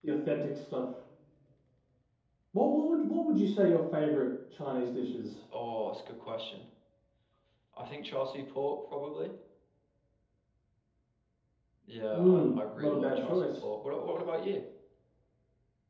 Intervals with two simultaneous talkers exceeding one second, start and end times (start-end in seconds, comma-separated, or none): 12.1-13.7